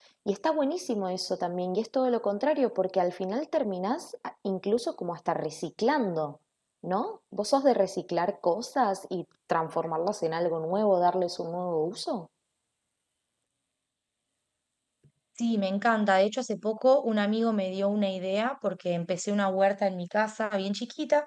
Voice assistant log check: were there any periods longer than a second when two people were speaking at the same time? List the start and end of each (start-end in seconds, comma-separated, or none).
none